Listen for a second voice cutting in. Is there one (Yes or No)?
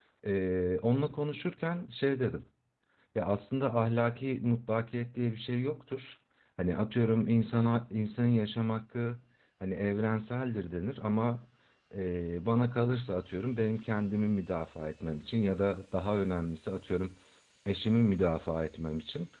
No